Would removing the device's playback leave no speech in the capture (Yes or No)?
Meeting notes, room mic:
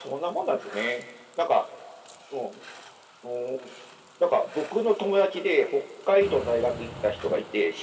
Yes